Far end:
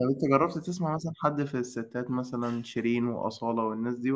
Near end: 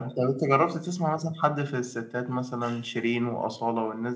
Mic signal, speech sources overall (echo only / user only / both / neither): echo only